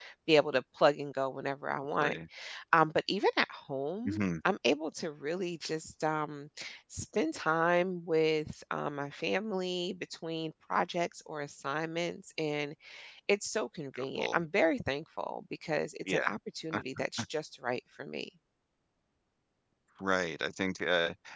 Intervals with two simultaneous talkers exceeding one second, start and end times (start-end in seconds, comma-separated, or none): none